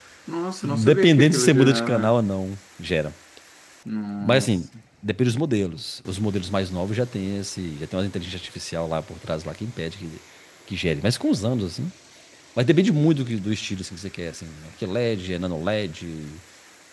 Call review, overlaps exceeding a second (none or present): present